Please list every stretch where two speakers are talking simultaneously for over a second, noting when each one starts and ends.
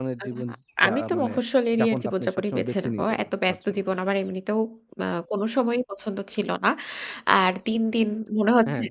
1.8-3.8

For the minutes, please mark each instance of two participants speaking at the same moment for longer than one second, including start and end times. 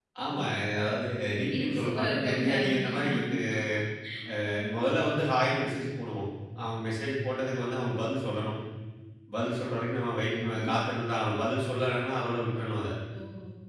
1.3-3.1

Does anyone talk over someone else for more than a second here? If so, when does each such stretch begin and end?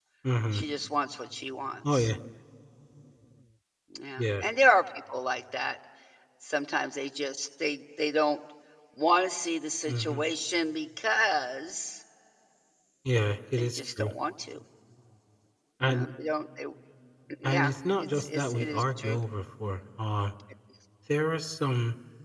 17.4-19.2

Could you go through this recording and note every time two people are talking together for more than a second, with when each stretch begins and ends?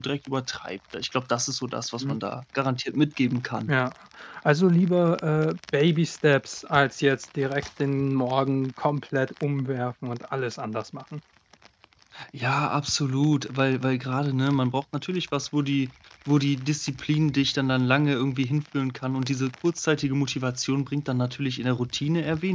none

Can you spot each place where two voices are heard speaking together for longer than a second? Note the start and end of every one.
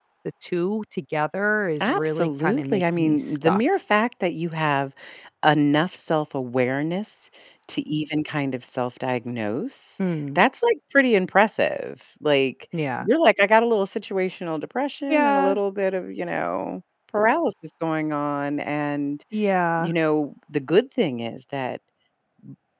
1.8-3.6

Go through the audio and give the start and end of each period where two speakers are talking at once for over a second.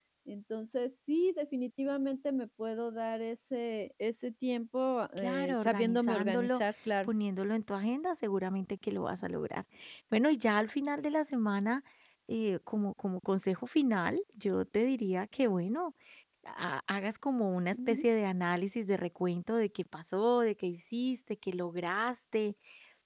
5.2-6.6

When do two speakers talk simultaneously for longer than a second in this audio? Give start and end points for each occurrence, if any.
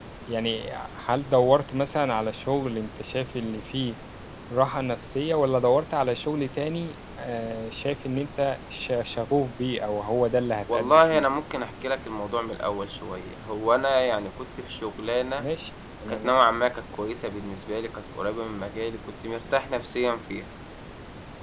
none

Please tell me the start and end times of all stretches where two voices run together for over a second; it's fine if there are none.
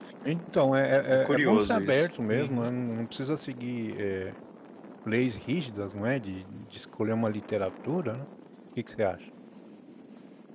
1.1-2.7

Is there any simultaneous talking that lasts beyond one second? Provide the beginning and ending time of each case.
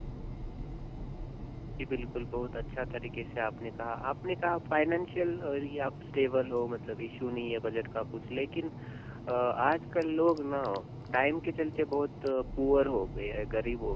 none

